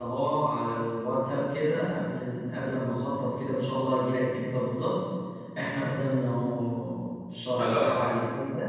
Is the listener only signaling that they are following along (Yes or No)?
Yes